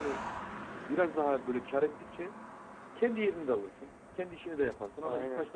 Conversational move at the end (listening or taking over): listening